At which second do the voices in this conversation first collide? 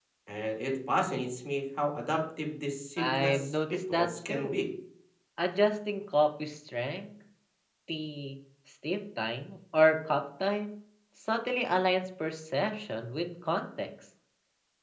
3.0 s

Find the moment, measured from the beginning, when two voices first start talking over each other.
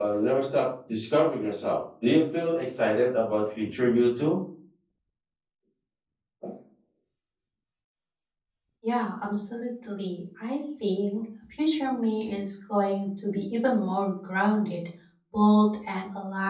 none

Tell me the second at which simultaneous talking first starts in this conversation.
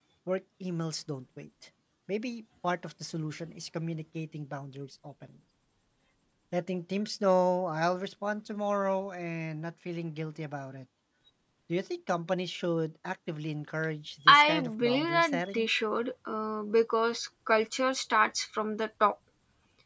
14.3 s

